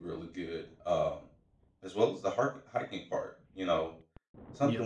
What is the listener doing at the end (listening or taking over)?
listening